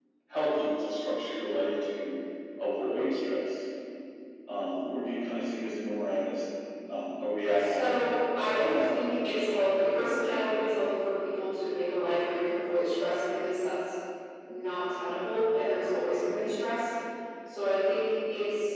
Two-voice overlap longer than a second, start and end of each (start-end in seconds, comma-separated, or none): 7.6-9.8